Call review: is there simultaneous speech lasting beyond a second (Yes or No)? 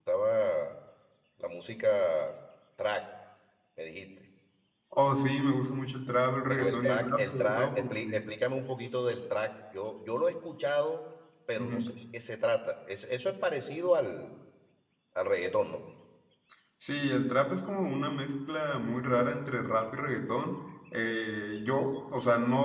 Yes